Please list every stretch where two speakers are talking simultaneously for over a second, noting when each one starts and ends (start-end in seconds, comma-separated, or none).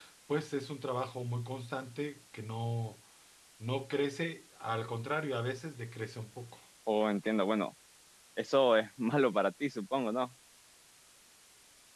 none